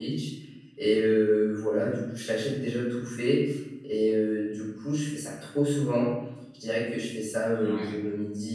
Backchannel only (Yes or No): Yes